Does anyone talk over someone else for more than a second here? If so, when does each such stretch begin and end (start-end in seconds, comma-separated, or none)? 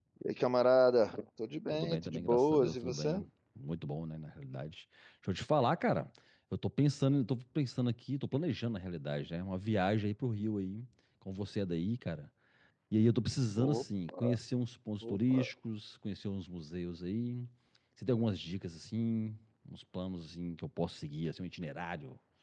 1.7-3.2